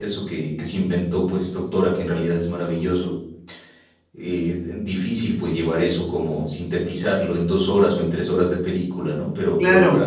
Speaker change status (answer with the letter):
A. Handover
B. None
A